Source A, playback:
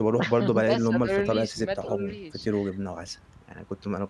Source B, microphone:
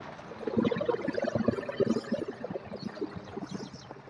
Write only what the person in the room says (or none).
none